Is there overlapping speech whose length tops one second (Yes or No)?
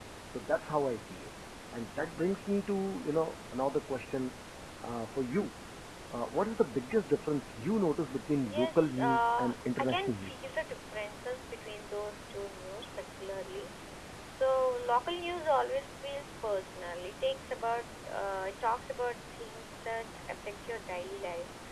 Yes